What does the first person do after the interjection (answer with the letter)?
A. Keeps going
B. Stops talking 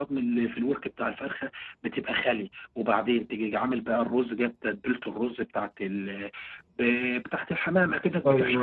A